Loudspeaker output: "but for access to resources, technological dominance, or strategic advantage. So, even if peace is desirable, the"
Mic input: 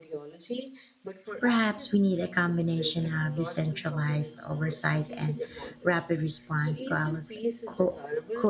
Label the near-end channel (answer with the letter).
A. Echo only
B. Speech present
B